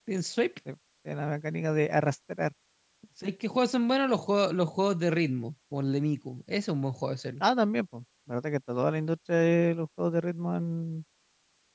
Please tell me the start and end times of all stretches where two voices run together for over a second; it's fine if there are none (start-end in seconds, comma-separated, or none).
none